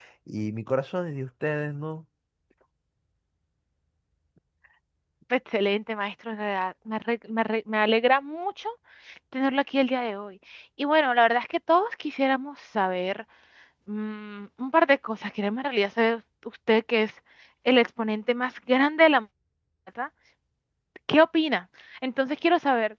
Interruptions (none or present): none